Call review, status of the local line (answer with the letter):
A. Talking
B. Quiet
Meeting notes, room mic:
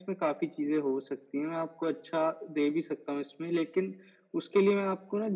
B